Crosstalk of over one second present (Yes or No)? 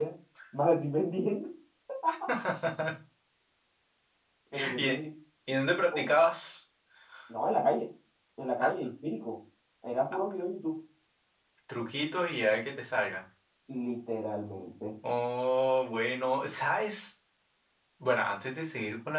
No